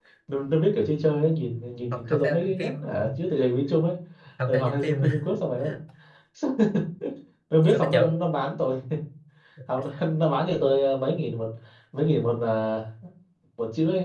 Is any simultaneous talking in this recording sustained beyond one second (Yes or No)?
Yes